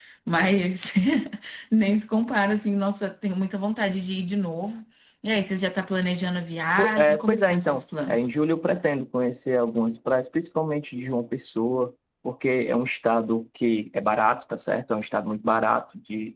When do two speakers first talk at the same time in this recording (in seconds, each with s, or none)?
6.8 s